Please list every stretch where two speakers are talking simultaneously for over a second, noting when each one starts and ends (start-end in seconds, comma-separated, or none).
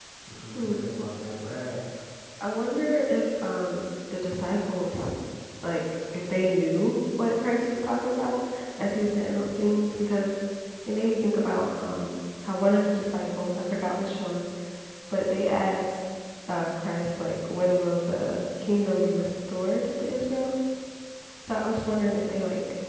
none